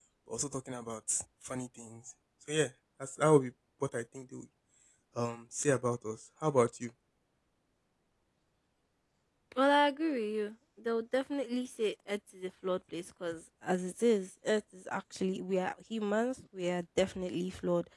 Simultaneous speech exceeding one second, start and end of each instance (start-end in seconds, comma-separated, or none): none